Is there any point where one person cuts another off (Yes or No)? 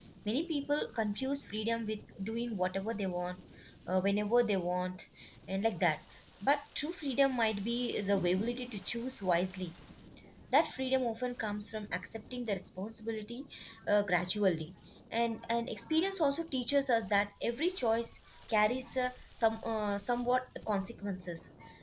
No